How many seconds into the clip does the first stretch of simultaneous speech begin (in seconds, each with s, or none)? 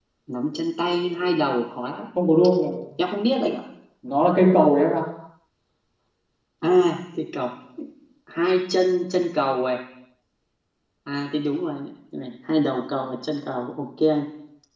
none